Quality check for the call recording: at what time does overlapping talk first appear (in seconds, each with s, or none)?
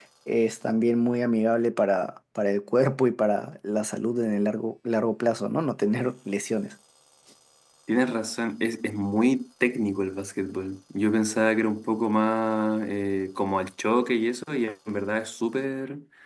none